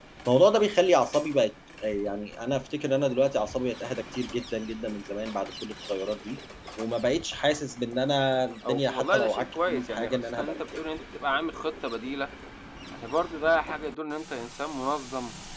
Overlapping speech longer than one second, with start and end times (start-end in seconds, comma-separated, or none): 8.7-10.6